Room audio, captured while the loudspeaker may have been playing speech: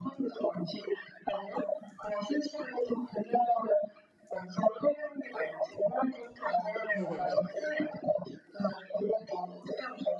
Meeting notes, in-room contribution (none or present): present